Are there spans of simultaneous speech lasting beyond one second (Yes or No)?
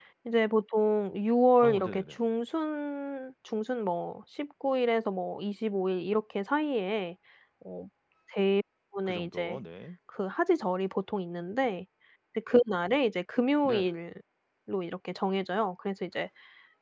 No